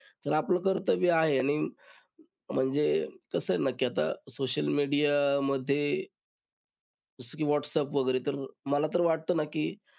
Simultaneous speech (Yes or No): No